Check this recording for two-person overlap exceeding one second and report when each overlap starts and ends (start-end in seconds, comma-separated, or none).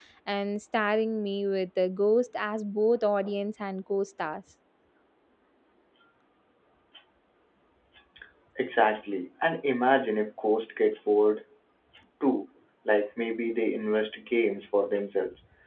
none